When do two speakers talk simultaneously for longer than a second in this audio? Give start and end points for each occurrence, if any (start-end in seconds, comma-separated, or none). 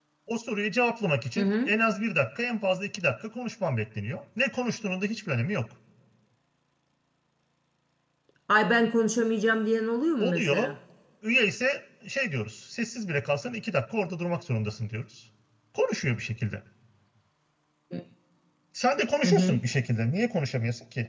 none